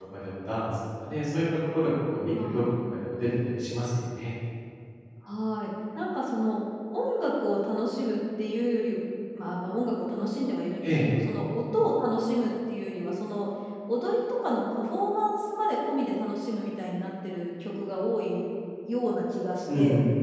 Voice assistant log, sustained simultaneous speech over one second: none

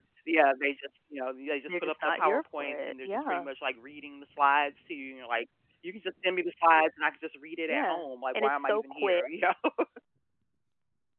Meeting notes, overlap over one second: present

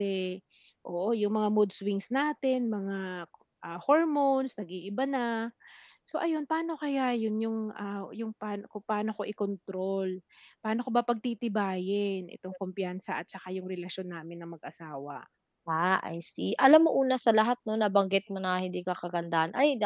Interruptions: none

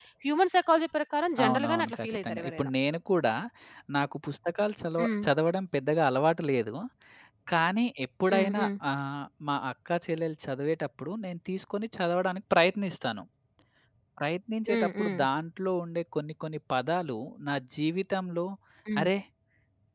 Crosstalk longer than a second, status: present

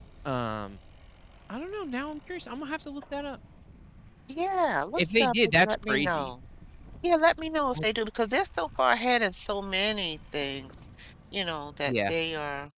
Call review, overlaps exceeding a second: present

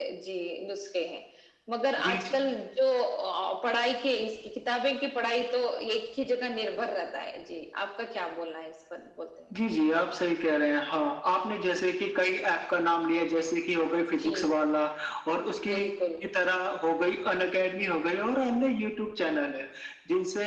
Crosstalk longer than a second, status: none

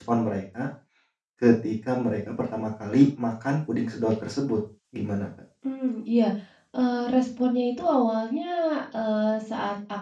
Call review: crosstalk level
none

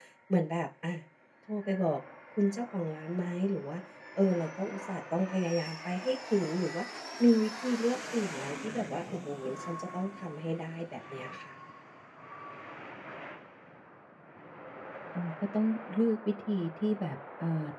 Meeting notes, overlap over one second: none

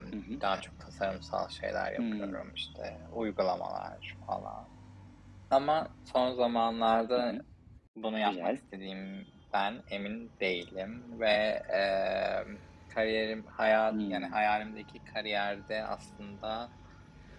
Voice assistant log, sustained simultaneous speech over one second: none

